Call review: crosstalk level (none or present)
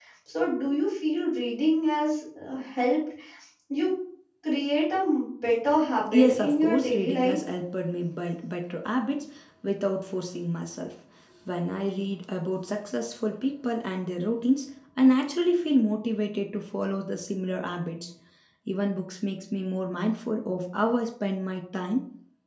present